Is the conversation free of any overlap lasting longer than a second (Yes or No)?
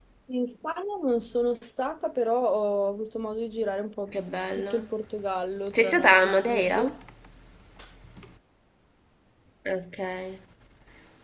No